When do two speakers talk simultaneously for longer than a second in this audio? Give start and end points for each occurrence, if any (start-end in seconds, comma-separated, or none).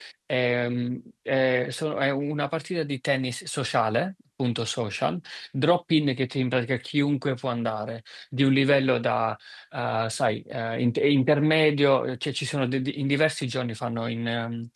none